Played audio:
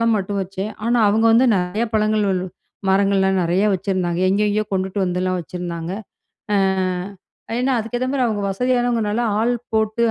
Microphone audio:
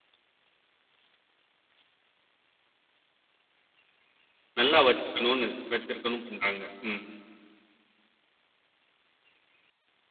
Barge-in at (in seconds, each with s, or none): 4.6 s